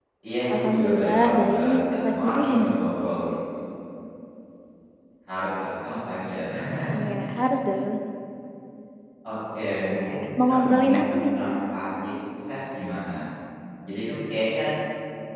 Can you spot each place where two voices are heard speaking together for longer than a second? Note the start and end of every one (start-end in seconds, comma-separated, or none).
0.5-2.8, 10.0-11.6